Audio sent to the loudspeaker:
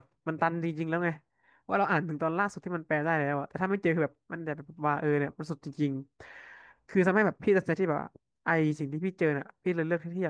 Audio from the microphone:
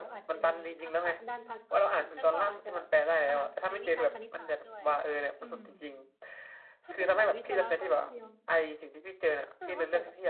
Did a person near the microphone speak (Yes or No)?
Yes